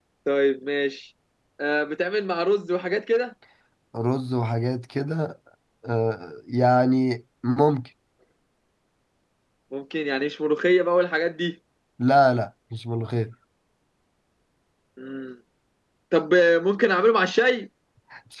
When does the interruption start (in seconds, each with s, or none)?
none